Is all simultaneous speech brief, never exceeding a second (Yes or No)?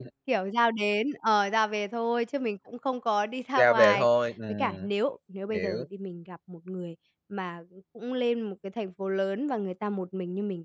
Yes